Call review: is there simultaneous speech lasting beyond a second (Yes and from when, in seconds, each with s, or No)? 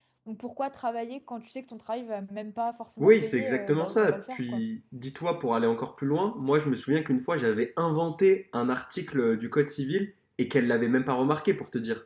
Yes, from 3.0 s